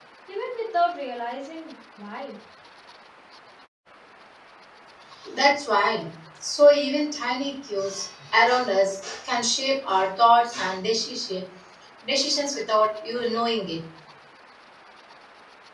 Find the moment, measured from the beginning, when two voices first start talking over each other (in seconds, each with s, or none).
none